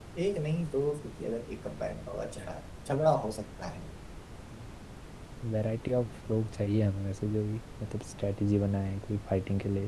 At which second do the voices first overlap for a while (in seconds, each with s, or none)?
none